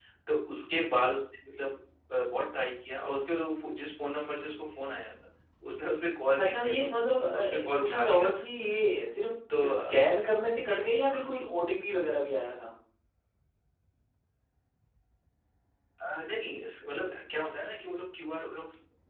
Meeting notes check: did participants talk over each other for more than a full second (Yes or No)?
Yes